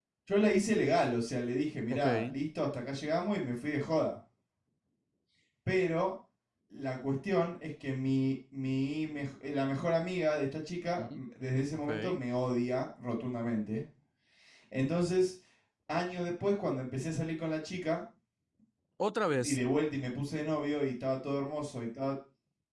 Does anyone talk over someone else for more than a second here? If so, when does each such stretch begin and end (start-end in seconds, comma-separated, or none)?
none